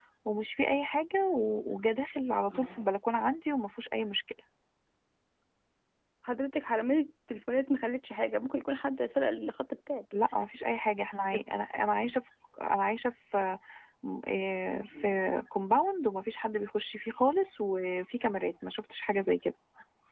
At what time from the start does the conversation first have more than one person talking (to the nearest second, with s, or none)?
none